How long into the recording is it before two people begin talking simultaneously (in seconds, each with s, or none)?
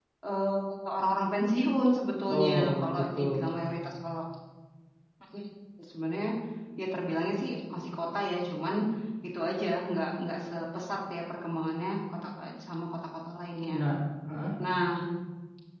2.3 s